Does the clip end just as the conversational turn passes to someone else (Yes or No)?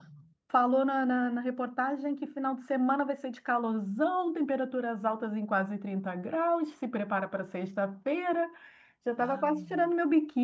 No